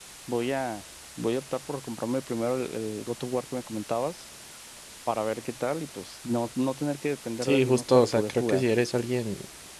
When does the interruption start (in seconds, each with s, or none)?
7.4 s